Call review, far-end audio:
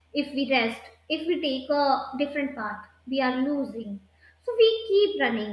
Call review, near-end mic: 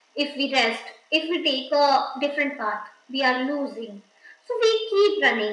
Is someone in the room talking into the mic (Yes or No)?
No